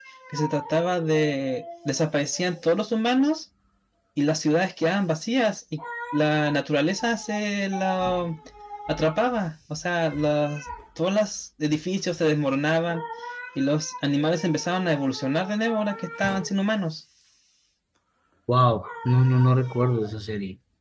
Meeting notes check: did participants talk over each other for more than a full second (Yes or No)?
No